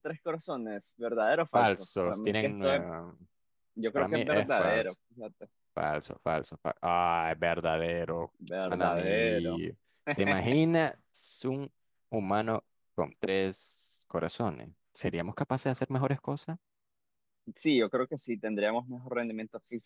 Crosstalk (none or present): present